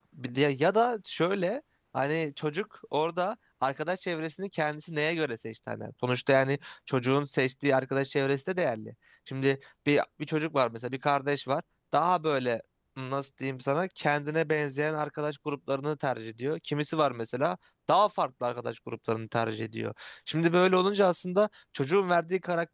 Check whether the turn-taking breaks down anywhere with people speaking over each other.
No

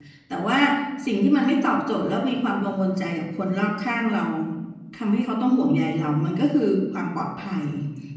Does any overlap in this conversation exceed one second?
No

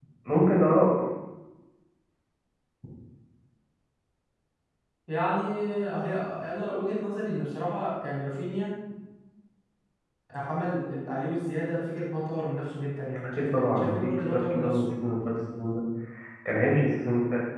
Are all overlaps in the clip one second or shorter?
No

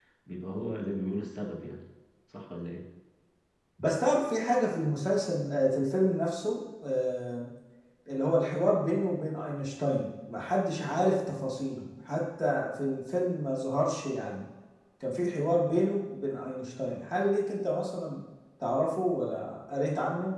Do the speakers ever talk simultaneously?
No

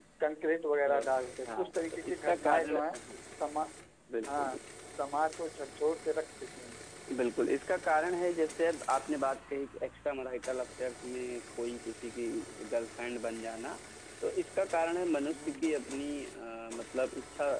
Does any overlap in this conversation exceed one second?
Yes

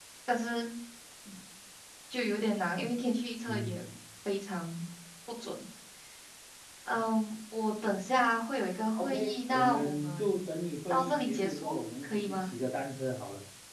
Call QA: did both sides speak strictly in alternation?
No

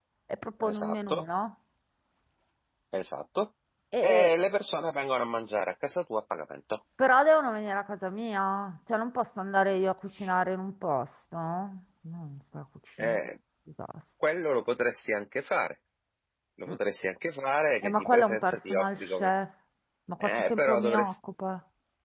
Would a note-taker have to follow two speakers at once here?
Yes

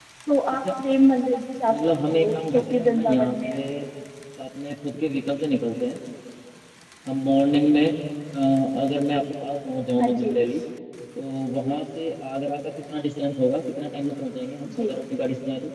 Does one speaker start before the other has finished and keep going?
Yes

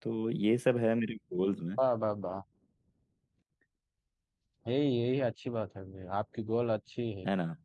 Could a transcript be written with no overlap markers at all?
Yes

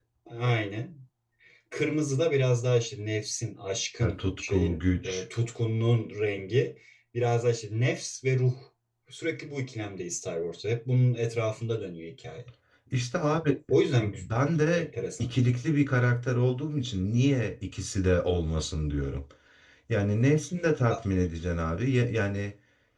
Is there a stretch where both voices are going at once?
Yes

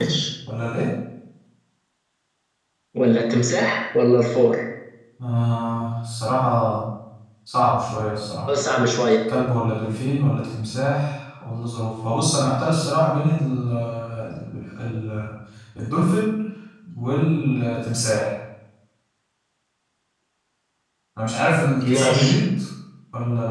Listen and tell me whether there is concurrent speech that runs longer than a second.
No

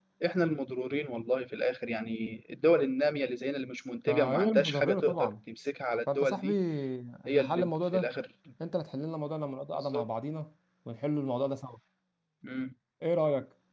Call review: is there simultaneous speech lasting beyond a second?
Yes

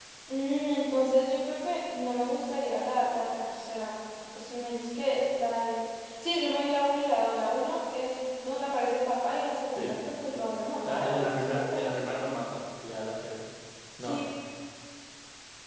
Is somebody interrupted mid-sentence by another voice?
Yes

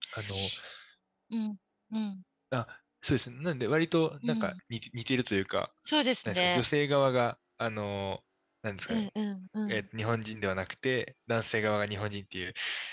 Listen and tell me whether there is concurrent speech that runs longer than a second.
No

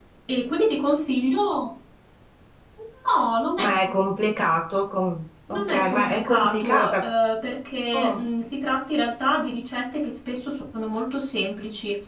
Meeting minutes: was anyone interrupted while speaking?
Yes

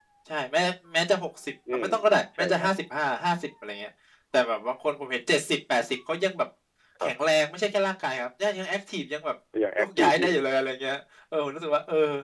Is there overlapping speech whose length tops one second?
No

